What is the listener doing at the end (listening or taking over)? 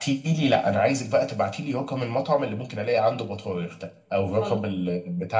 listening